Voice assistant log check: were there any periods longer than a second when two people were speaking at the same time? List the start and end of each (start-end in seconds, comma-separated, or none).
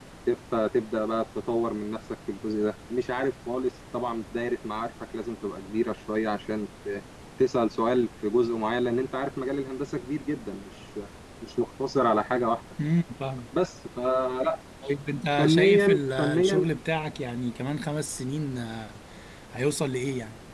15.4-16.6